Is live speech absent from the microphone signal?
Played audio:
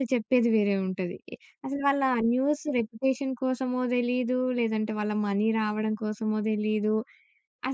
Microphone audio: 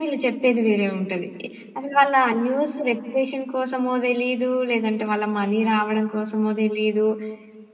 Yes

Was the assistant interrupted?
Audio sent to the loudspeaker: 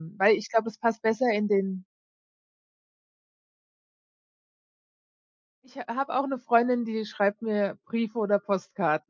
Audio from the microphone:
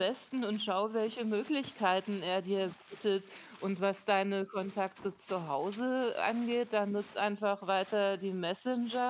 Yes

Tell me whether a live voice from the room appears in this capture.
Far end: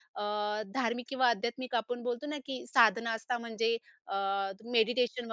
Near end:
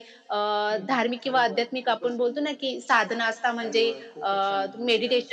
Yes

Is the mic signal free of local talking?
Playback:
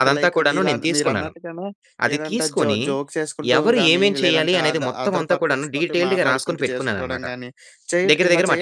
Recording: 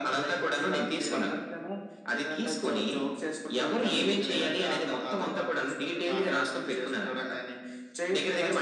Yes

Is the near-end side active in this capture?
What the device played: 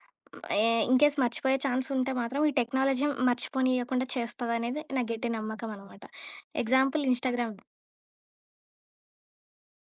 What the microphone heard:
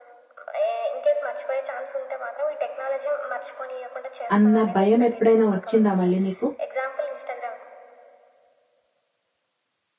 Yes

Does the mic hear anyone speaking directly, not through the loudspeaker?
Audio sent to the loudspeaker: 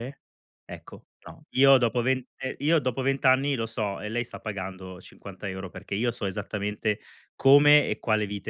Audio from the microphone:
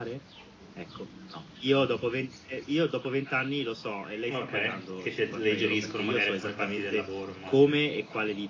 Yes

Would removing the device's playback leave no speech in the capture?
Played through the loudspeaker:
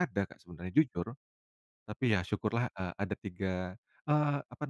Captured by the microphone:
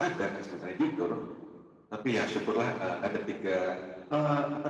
Yes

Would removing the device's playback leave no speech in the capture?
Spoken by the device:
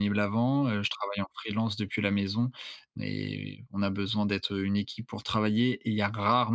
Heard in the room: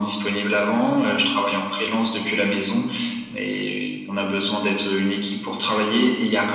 Yes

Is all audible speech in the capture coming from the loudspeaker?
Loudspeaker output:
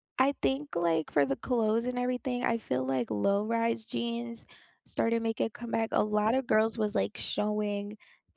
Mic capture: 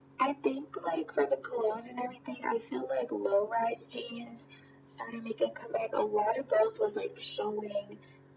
Yes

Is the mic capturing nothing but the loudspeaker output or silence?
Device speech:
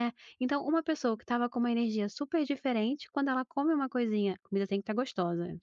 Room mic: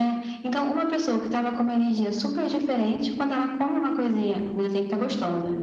Yes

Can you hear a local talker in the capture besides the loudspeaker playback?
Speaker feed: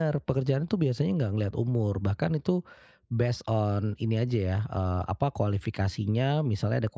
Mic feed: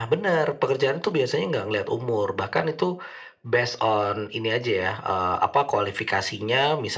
No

